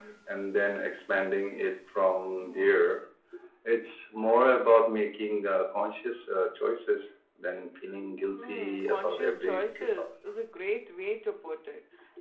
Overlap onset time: 8.4 s

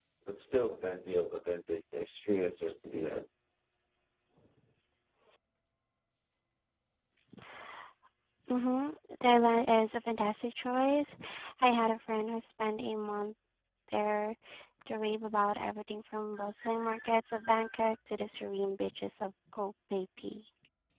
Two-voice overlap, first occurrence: none

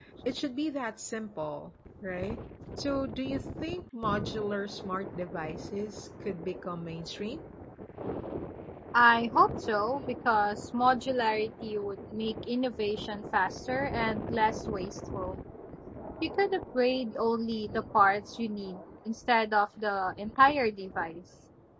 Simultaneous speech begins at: none

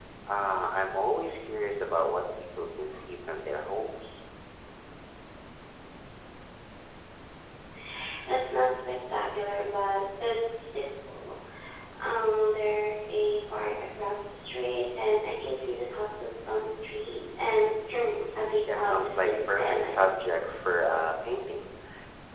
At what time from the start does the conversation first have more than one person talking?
18.6 s

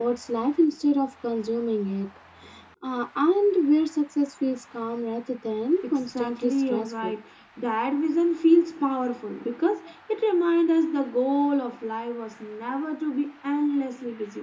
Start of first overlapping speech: 5.8 s

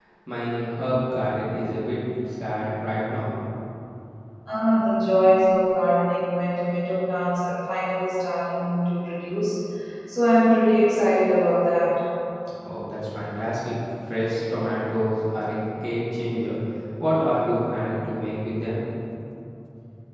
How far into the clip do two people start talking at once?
none

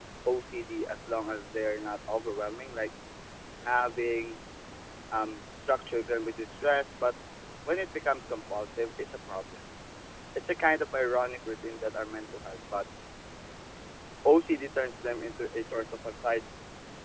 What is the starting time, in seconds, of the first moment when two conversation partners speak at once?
none

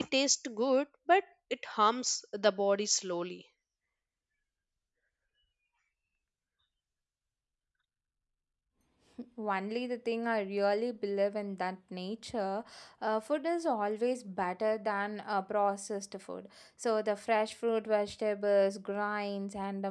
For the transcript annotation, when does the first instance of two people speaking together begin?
none

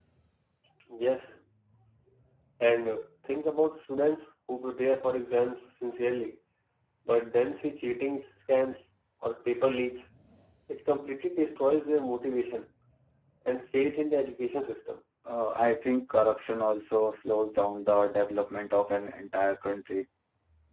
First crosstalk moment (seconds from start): none

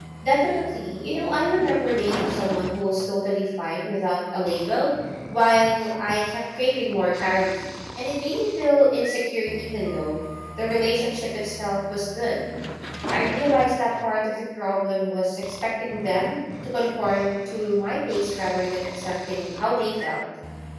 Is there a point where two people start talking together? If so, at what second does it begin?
none

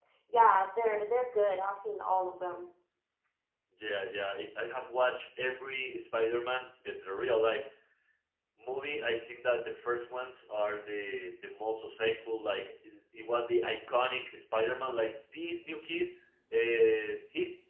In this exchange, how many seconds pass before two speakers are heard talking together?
none

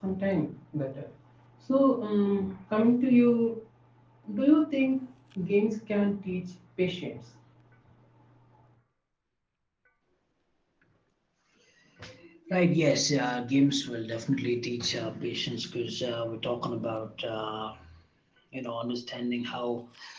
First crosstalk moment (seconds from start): none

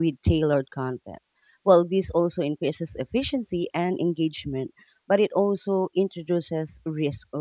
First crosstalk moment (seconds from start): none

